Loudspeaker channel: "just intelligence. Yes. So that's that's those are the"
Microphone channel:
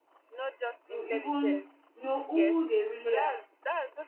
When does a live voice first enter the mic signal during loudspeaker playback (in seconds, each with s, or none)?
0.8 s